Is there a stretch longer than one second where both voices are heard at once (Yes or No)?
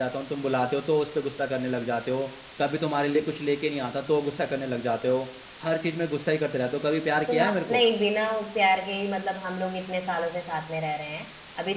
No